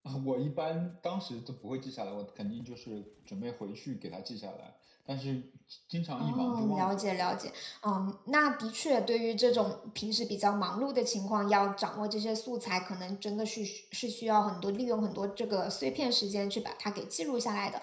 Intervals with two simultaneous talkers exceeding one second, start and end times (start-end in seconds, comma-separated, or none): 6.2-7.4